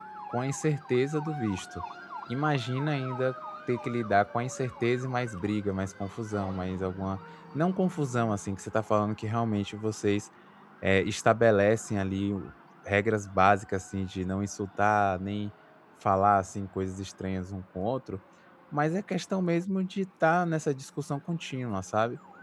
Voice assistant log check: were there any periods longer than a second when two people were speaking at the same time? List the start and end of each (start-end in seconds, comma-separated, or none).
none